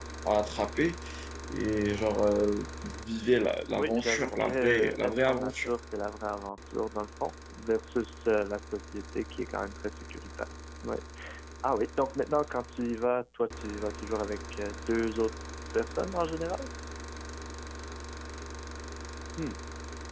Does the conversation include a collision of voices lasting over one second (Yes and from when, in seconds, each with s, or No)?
Yes, from 3.7 s